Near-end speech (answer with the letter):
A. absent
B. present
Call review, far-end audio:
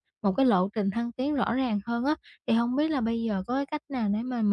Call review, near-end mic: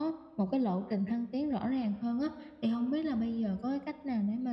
A